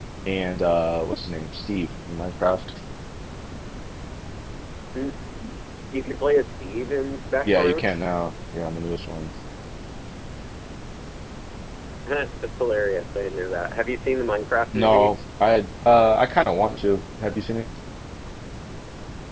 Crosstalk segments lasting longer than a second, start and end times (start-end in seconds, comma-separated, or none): none